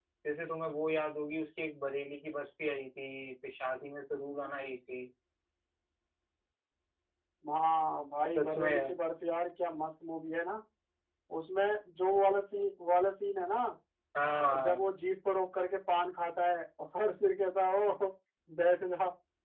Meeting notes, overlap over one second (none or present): none